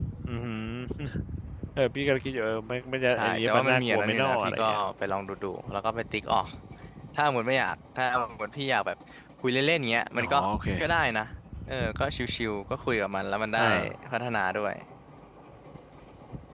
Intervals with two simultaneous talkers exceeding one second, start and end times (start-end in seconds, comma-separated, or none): 3.1-4.8